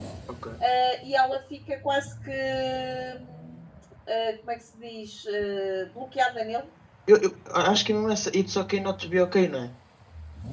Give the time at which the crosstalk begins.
none

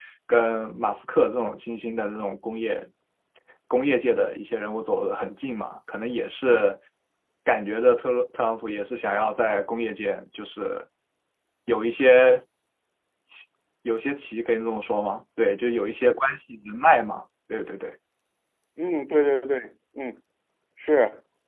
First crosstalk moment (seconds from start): none

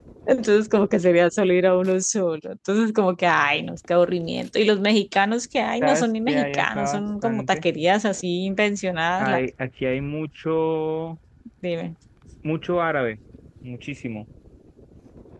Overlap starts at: 5.8 s

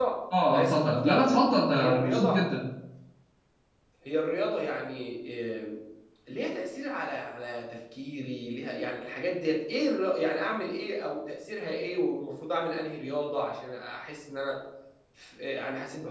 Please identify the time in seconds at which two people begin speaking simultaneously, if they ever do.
0.5 s

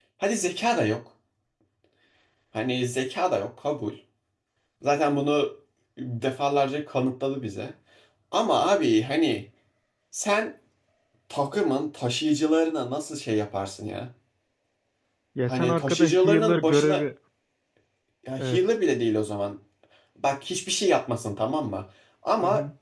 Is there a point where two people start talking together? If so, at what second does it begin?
15.5 s

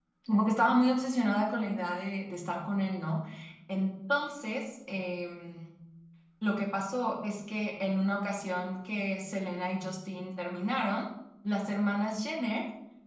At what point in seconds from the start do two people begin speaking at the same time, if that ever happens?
none

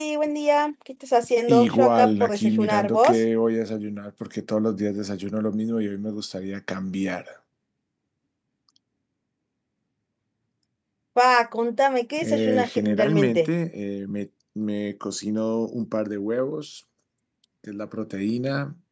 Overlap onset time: 1.5 s

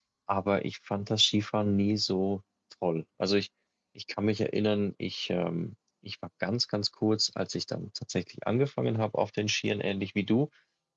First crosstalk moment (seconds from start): none

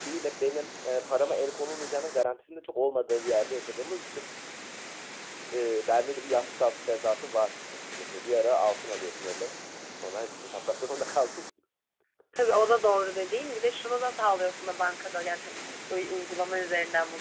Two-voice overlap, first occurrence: none

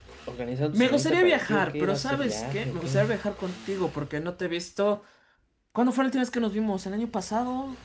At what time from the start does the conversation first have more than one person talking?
0.7 s

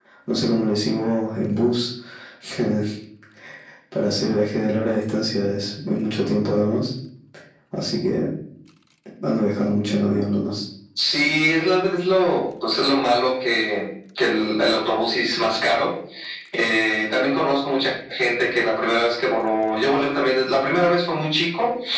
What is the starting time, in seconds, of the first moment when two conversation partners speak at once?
none

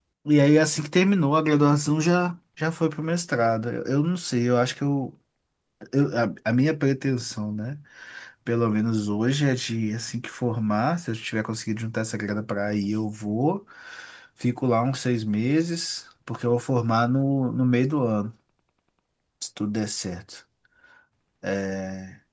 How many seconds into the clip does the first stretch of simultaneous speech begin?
none

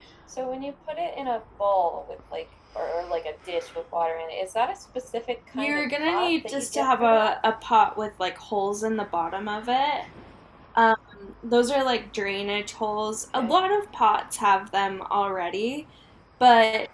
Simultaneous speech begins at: 5.6 s

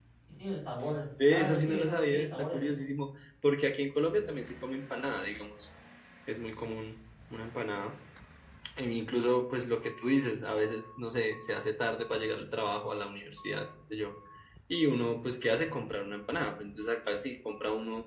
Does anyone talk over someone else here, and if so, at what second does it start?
1.3 s

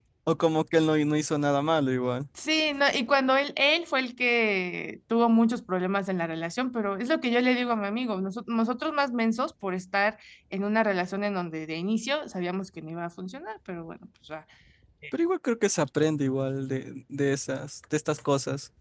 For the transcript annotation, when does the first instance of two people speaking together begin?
none

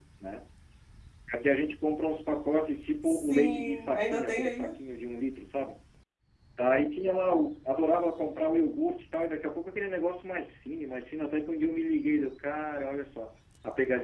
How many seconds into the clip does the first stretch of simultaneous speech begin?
3.0 s

